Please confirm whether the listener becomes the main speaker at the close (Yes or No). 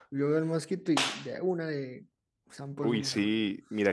Yes